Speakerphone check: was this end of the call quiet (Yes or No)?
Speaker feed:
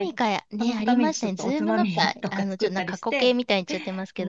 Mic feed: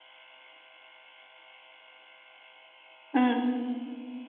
No